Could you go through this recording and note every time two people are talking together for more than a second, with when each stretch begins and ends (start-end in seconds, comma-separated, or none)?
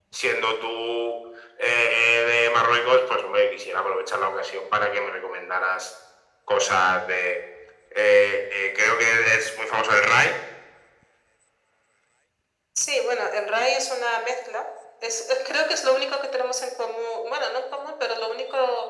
none